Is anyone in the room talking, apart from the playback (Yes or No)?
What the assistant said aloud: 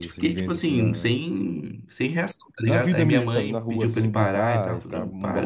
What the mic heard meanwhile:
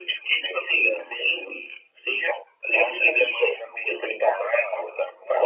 No